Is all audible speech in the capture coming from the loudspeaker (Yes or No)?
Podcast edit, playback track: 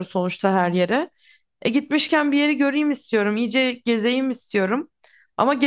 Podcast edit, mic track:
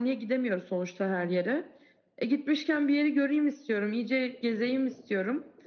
Yes